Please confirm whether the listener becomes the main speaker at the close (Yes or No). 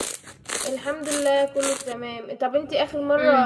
No